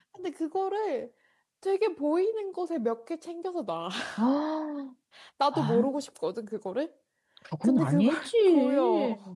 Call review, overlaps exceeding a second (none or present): present